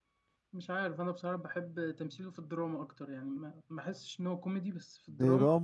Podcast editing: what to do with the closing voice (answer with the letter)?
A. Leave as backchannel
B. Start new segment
B